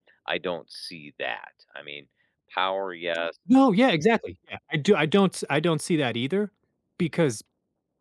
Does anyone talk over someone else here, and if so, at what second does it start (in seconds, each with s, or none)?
none